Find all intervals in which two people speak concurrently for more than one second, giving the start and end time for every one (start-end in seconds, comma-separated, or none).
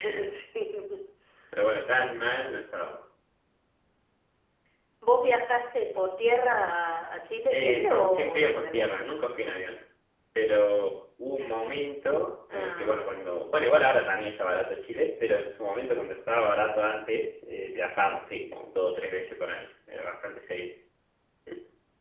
7.5-8.9